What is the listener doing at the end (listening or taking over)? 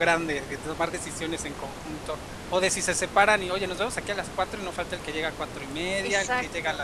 taking over